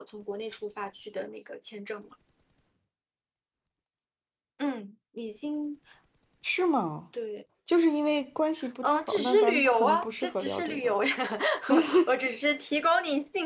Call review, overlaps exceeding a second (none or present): present